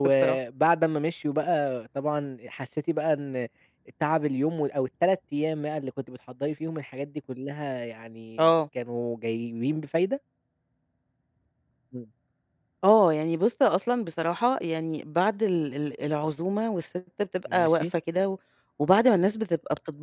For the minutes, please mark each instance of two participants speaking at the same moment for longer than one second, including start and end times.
none

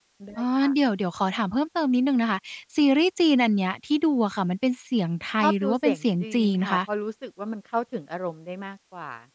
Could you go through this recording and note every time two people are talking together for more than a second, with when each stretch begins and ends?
5.4-6.8

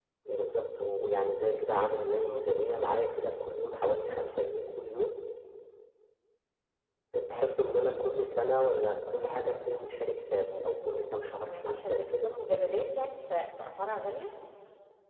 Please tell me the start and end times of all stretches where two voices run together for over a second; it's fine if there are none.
10.6-12.3

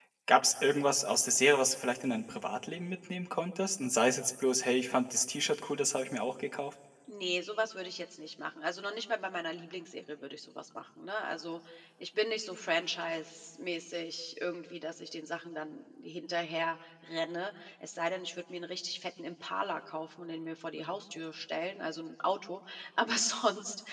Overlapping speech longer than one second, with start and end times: none

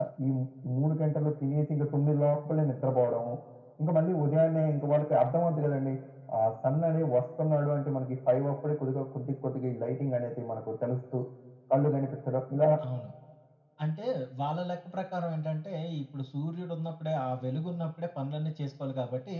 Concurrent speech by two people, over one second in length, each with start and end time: none

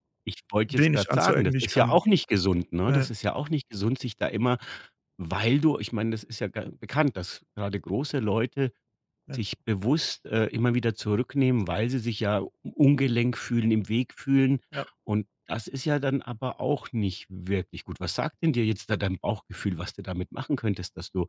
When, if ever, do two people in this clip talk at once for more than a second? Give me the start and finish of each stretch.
0.7-2.0

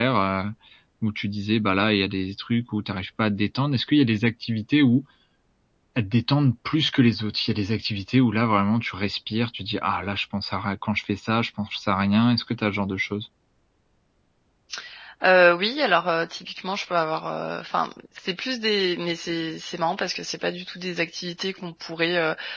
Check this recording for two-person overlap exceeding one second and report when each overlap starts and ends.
none

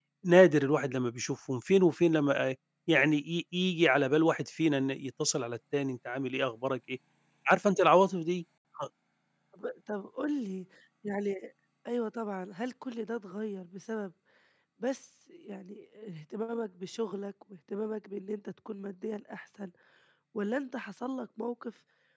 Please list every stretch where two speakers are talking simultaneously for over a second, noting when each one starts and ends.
none

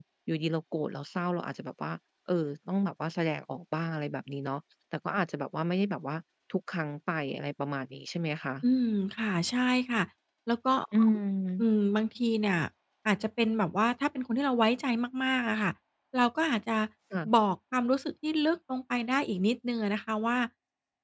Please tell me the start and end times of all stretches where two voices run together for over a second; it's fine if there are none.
none

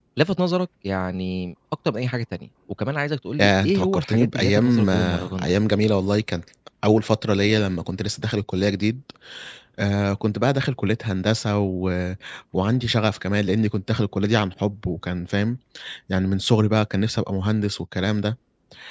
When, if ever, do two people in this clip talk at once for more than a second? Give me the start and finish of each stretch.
3.4-5.5

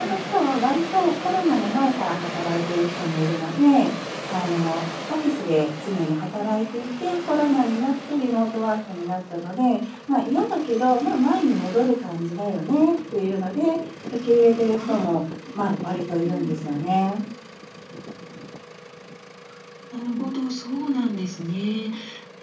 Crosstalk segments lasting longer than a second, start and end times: none

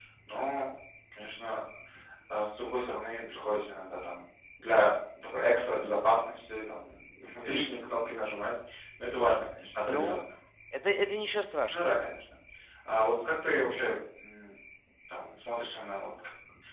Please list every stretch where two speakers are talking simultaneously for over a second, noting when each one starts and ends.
none

